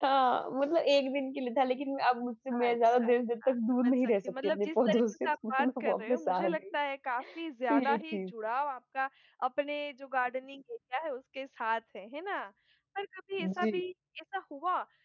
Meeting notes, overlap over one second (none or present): present